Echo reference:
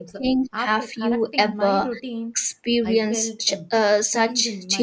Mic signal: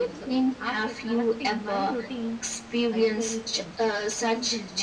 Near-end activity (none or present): none